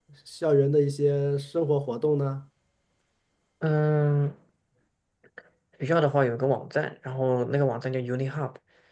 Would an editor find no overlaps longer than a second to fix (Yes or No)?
Yes